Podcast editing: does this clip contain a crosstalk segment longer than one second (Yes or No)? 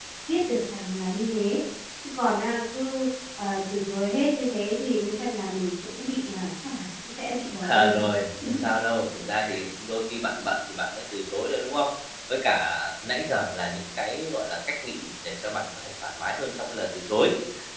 No